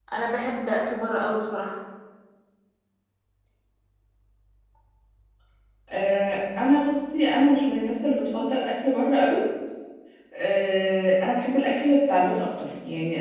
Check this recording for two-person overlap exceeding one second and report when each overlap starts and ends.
none

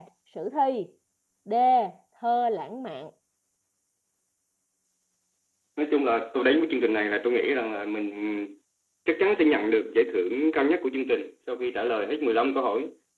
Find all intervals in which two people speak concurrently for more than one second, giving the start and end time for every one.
none

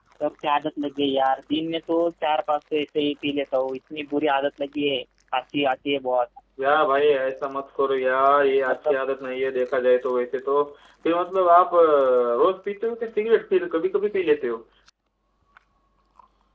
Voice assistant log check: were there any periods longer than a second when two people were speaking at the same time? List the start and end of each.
none

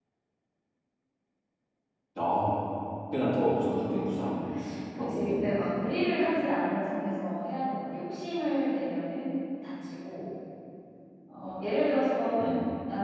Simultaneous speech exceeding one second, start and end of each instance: none

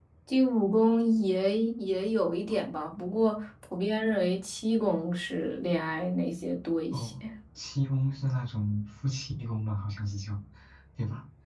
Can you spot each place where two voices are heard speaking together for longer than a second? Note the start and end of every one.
none

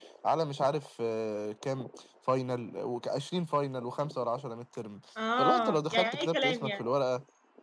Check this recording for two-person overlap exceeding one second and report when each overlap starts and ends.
5.4-6.8

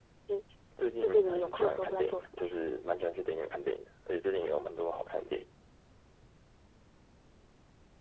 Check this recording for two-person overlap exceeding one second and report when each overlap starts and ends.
1.0-2.6

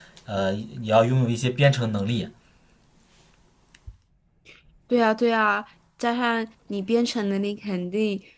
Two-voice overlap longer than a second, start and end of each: none

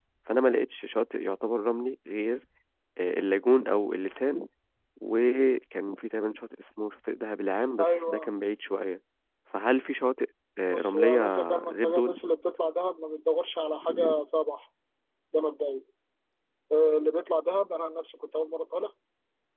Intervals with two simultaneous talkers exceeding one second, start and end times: 10.7-12.1

